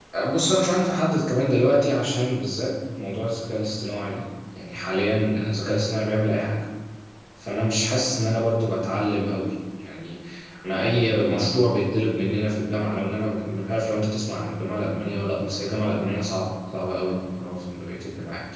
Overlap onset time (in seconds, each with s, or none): none